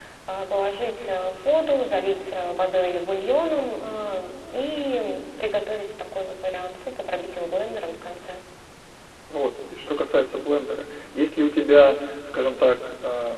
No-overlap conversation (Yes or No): Yes